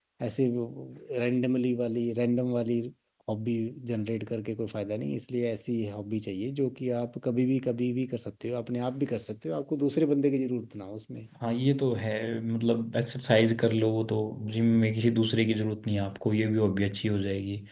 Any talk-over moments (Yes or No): No